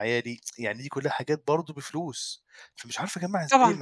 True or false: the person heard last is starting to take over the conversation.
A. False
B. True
A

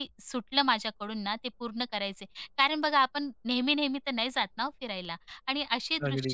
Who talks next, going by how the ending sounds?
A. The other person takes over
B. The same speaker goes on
B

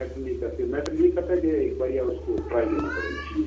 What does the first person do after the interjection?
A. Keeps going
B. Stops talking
B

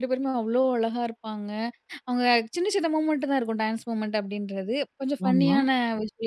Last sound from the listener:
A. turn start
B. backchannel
B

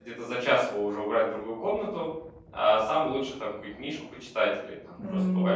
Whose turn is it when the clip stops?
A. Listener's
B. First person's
A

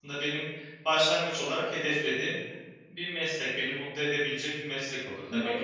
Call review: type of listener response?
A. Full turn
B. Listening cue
A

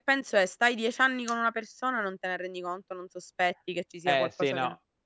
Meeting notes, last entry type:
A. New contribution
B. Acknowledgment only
A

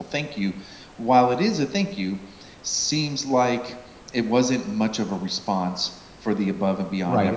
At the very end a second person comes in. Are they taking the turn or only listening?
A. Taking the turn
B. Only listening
A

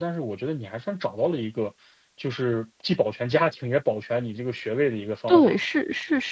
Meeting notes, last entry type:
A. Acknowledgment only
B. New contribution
B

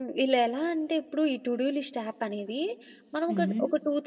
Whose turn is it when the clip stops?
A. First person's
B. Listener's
A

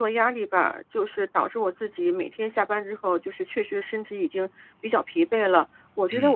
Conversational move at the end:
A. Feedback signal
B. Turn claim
A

